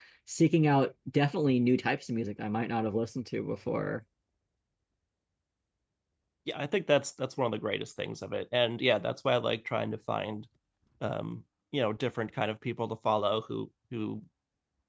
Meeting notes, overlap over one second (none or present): none